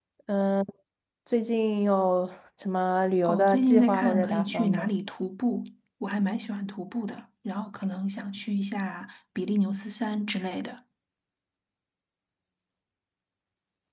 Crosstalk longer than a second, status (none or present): present